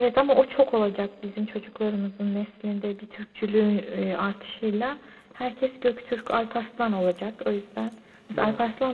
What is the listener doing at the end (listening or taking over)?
listening